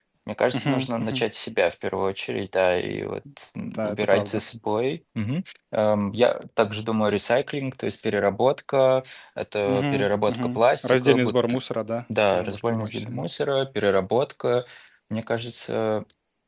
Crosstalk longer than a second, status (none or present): present